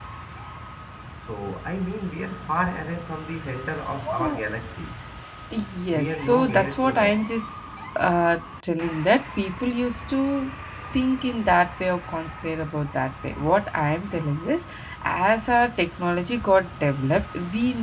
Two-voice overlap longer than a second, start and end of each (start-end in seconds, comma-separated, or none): 5.9-7.2